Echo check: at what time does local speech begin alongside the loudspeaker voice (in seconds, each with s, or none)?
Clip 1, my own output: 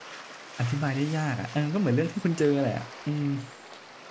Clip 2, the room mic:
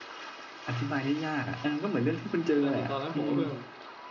2.5 s